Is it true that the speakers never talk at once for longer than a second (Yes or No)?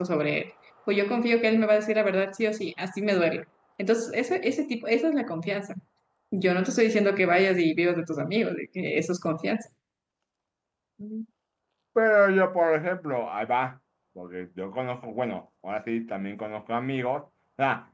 Yes